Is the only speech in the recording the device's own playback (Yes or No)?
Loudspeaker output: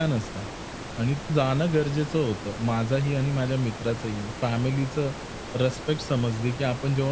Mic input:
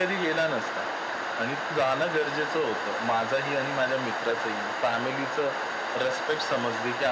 Yes